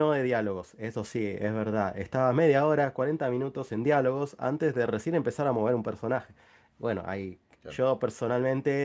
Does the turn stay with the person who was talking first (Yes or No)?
Yes